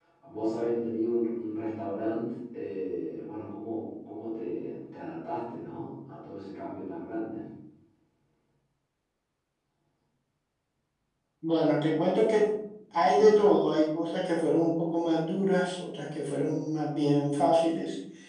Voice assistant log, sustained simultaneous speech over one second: none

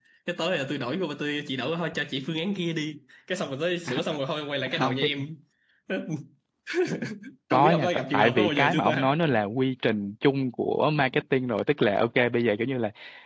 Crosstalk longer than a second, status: present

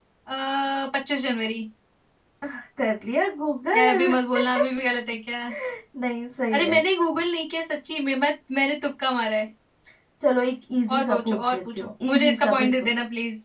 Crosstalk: present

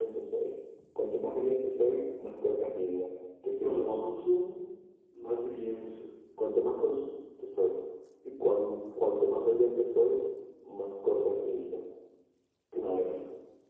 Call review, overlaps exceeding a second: none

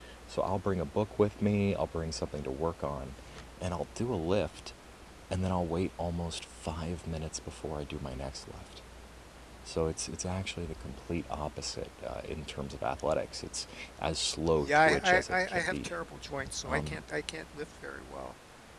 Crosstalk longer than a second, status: present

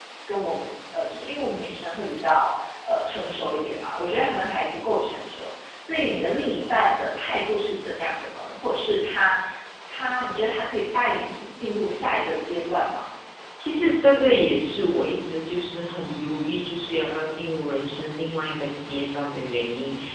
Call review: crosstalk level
none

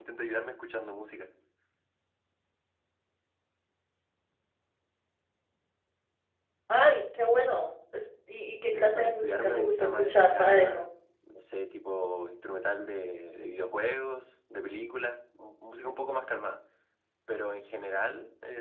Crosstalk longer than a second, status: present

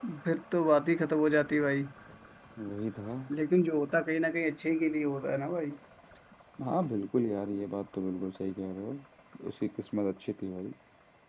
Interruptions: none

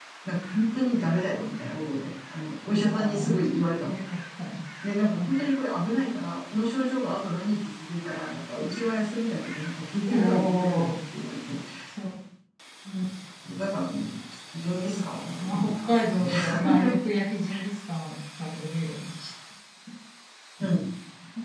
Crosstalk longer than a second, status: present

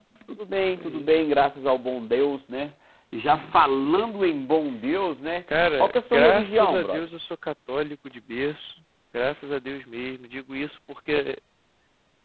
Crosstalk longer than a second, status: present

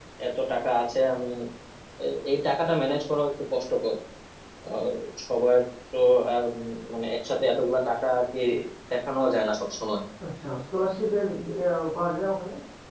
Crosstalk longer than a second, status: none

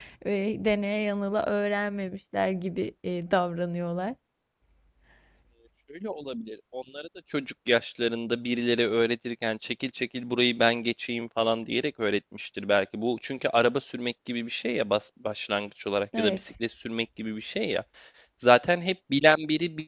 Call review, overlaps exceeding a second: none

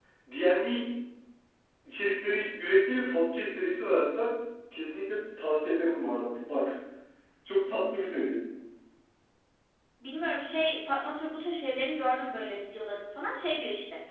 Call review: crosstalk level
none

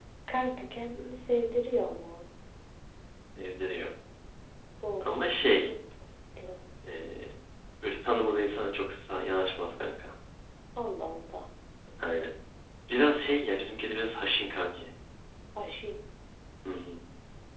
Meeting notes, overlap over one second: none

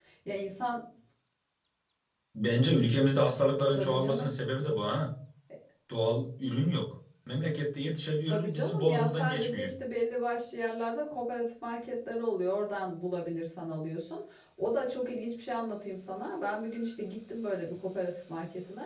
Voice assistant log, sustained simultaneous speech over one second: present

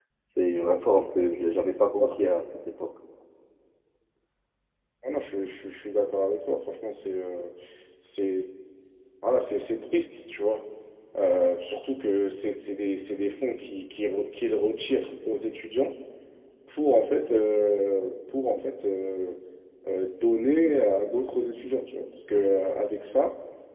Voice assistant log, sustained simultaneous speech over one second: none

